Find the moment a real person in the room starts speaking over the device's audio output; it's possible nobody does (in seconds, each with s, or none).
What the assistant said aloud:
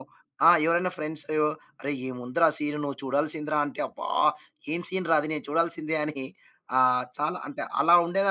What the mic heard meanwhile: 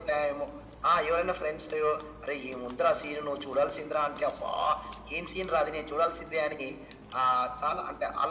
none